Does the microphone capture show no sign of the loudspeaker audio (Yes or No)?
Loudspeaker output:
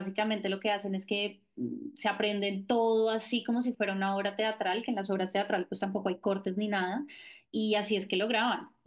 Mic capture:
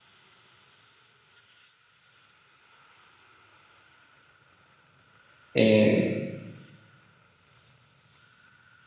Yes